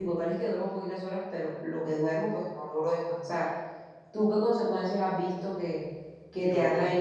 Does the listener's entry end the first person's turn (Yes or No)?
No